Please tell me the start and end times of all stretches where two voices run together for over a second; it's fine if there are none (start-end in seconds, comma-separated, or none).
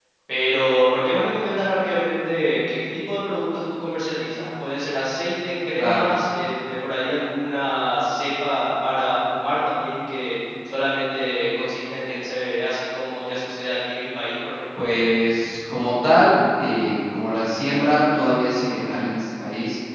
none